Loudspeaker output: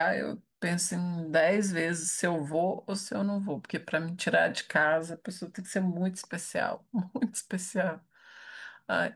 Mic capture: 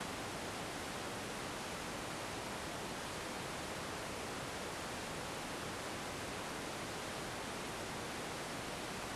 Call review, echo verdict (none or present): none